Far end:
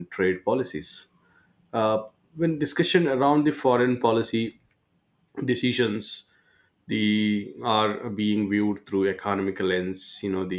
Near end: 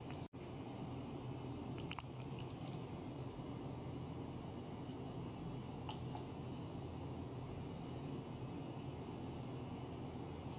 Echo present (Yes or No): No